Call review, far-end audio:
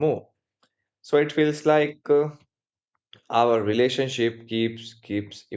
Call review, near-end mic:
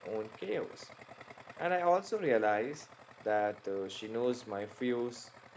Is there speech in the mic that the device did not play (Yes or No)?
Yes